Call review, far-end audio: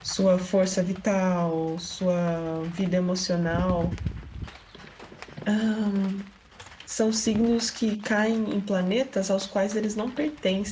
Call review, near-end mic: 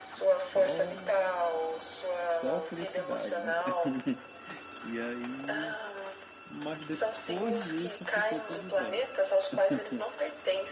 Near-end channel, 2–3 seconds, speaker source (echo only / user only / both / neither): both